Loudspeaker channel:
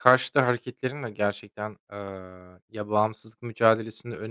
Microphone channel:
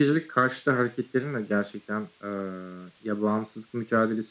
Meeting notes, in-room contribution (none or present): none